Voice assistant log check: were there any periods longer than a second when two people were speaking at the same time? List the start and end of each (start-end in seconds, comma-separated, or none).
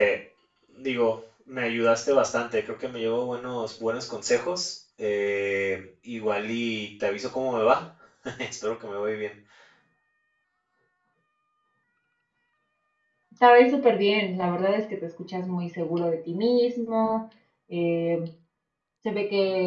none